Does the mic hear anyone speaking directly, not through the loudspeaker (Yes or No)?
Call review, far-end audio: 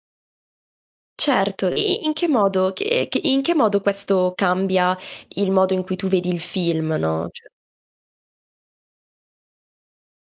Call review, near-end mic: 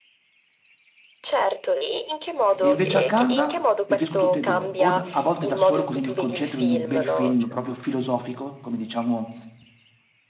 Yes